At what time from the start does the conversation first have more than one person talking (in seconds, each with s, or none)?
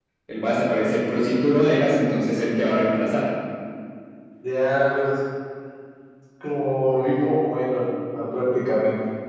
none